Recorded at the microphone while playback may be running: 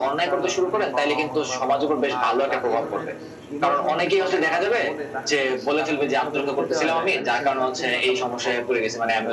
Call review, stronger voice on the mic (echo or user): echo